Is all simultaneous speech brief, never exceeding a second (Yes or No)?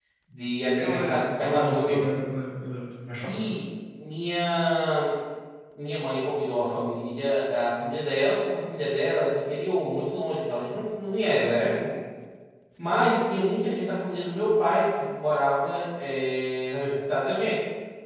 No